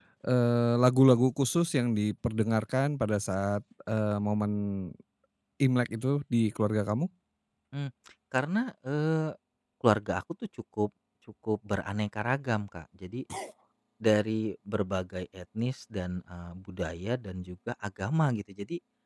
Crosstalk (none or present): none